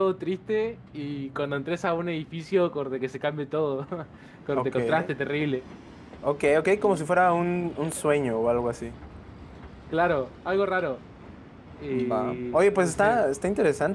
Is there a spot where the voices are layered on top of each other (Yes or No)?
Yes